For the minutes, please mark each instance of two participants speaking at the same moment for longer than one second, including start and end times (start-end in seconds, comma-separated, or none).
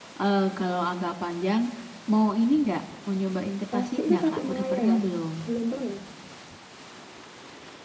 3.7-5.0